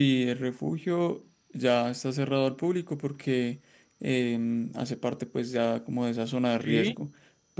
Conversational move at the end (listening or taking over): listening